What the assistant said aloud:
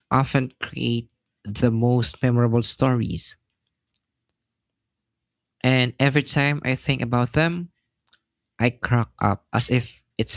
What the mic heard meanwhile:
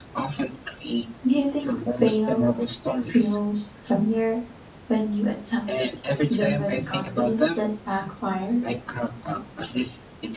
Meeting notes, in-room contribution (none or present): present